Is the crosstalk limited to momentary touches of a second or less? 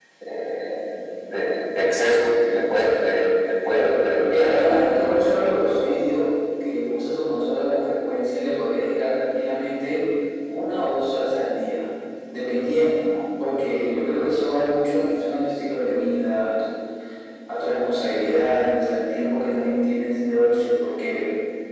No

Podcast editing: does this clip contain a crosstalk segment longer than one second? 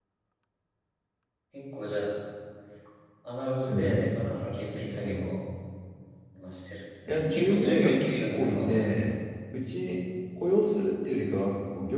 Yes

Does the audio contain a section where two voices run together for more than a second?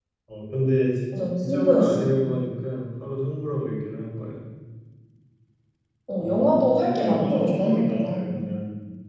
Yes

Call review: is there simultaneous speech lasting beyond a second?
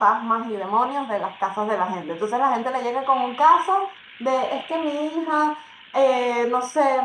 No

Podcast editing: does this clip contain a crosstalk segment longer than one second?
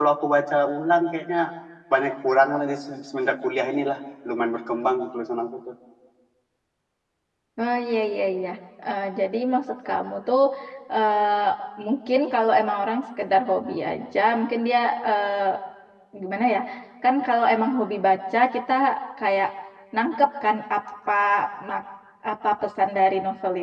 No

